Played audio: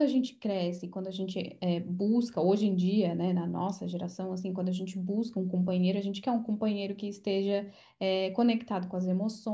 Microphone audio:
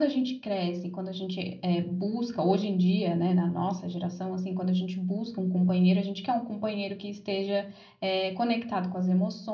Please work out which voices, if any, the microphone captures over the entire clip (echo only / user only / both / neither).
echo only